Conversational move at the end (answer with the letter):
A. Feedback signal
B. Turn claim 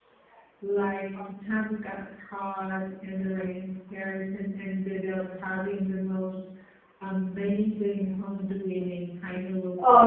B